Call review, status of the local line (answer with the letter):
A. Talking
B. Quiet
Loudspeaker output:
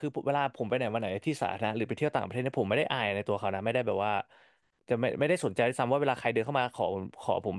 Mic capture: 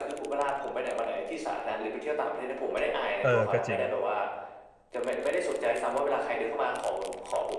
A